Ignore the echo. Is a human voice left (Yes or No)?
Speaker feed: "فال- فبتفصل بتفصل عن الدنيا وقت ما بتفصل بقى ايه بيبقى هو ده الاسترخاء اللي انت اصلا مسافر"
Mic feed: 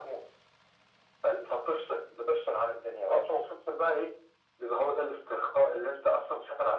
No